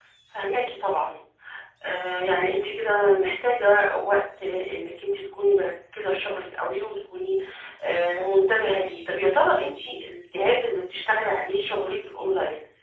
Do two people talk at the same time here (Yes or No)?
No